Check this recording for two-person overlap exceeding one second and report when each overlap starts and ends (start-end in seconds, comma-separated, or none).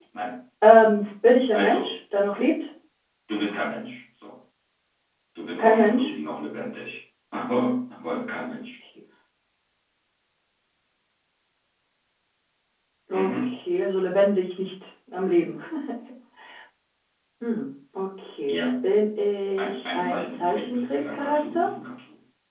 19.6-21.7